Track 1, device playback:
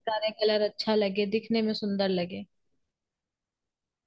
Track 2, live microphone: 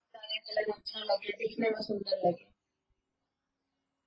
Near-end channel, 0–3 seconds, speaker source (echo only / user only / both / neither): echo only